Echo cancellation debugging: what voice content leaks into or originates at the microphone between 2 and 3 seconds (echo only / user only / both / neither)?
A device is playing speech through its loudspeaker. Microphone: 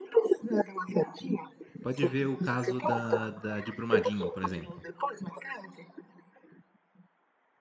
both